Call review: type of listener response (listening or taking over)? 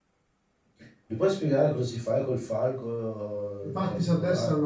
taking over